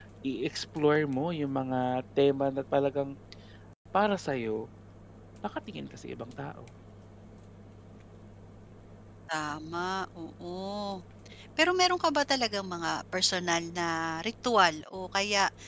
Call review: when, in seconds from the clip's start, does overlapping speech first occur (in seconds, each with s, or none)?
none